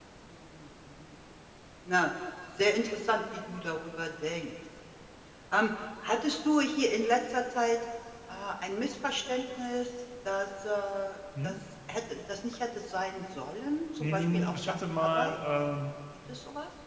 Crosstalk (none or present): present